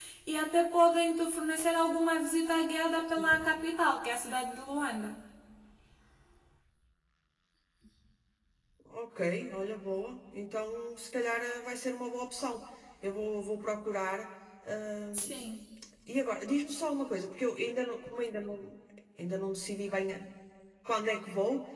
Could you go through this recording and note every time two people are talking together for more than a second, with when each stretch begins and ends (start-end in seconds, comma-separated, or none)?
none